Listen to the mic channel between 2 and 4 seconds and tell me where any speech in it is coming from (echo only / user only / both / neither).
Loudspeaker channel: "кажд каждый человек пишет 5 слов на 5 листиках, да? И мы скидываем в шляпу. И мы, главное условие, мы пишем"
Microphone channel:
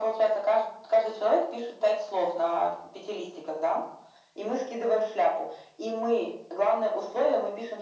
echo only